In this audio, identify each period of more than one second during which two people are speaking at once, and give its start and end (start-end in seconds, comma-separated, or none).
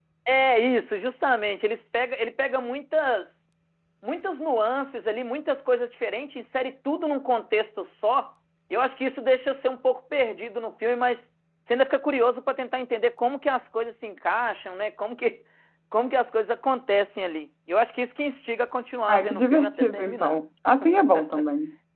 19.1-20.4